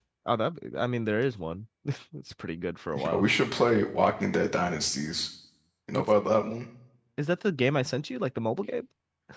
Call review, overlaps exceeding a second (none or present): none